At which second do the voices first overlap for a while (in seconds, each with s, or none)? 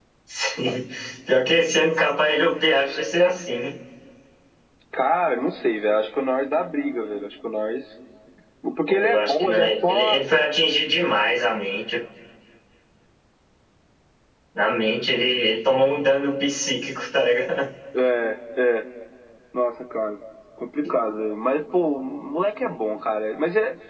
8.9 s